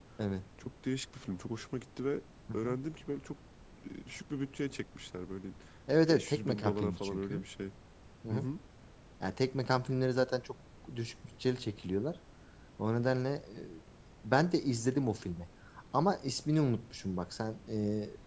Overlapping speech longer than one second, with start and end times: 6.1-7.4

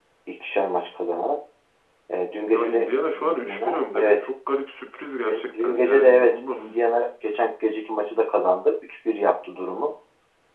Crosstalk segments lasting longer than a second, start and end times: 2.5-4.3, 5.2-6.8

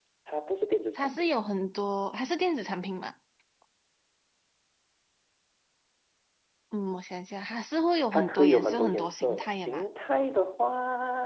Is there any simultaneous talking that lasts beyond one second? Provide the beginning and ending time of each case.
8.1-9.8

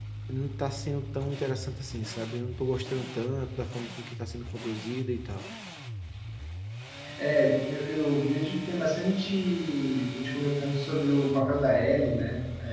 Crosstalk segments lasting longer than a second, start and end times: none

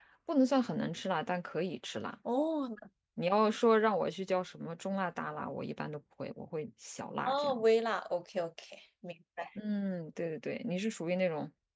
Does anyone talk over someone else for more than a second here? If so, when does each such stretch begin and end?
none

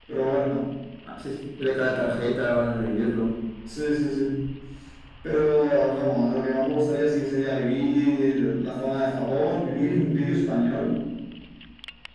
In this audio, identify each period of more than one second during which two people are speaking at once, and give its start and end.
none

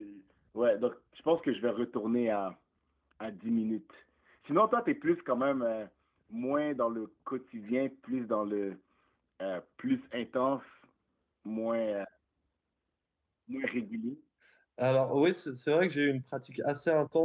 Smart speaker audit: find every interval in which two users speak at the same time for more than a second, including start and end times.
none

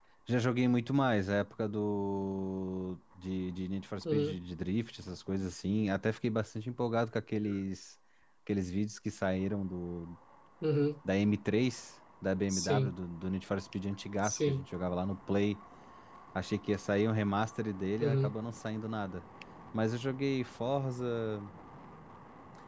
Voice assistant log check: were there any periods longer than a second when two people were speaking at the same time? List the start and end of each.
none

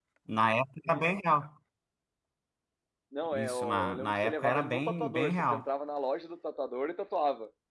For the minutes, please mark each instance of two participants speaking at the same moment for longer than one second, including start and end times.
3.3-5.7

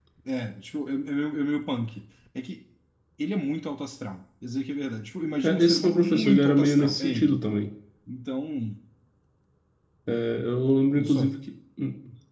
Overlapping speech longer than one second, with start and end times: 5.4-7.4

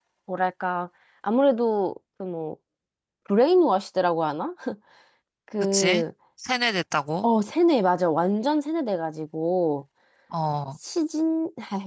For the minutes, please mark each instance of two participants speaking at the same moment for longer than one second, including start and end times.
none

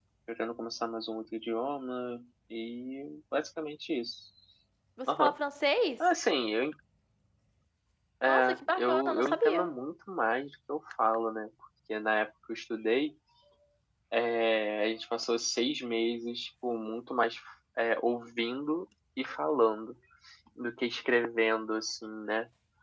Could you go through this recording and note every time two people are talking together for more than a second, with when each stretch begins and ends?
8.2-9.7

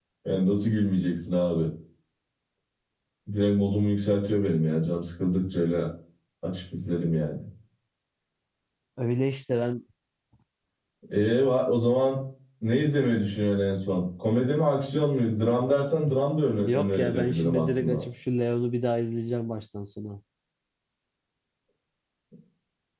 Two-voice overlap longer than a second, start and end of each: 16.6-18.0

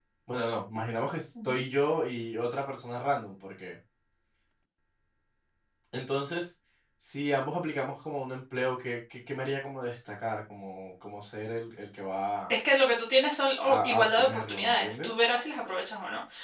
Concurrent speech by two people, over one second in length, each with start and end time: 13.7-15.1

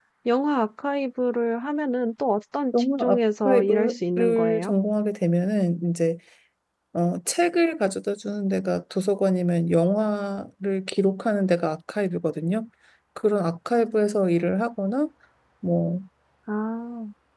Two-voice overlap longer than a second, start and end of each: 3.4-4.7

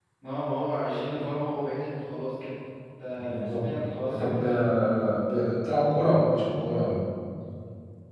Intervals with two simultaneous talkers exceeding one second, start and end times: none

